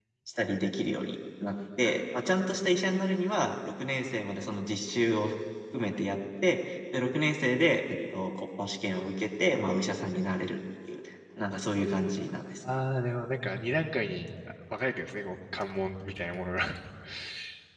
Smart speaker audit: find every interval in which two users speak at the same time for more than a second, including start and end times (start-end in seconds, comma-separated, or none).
none